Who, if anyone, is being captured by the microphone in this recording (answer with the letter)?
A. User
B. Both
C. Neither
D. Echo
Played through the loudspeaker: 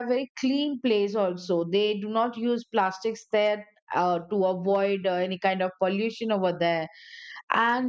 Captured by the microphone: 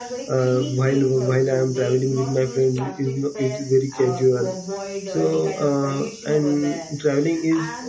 B